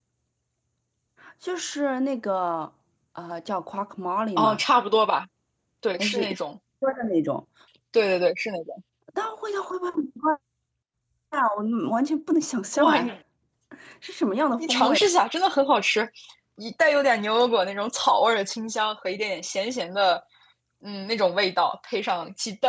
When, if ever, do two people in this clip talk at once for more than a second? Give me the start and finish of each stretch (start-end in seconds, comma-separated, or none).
none